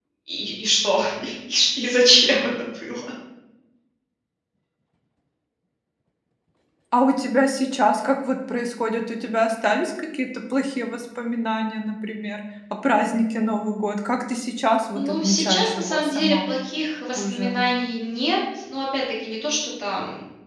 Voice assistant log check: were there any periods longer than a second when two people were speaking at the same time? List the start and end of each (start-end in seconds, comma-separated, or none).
14.9-16.5